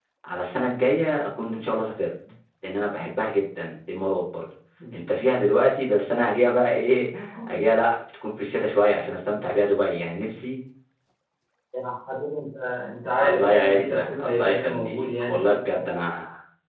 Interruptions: present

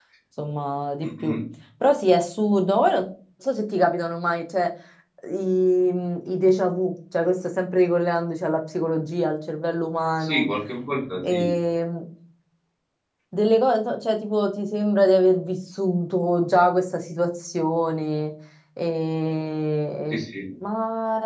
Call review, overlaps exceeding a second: none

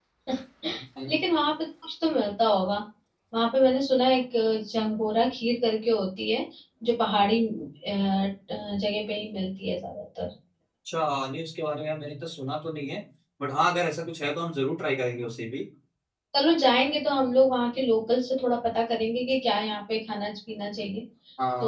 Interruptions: none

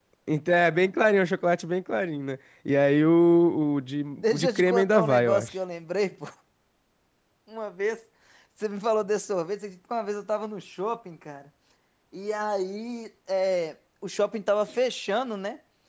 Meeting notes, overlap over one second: present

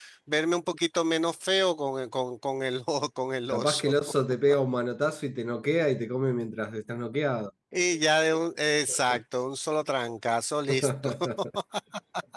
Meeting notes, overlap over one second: none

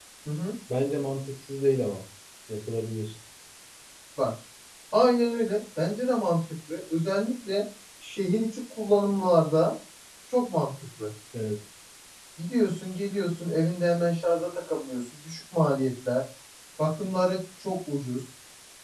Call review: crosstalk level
none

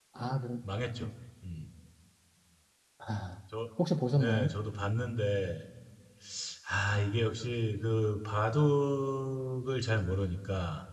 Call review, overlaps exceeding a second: none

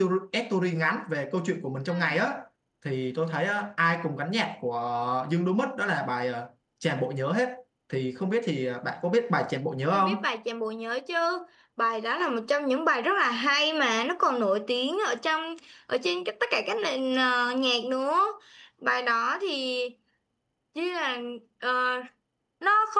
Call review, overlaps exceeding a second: none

